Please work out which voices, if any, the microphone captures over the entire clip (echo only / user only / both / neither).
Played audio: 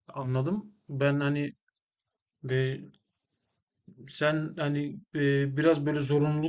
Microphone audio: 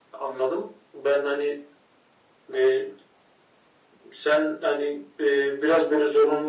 echo only